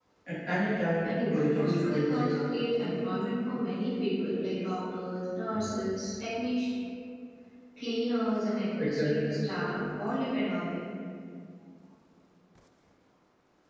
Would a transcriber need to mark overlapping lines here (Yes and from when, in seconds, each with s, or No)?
Yes, from 1.0 s